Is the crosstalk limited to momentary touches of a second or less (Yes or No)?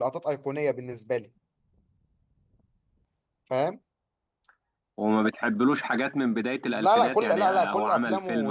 No